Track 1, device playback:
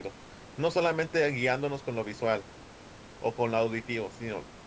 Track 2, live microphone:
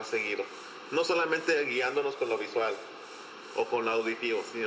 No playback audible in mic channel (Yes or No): No